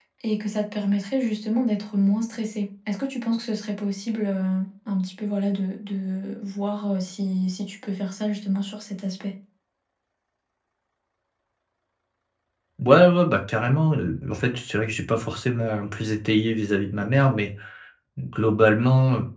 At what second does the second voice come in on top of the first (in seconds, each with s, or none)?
none